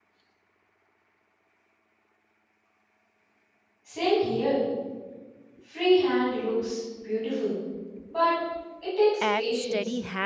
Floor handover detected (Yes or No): Yes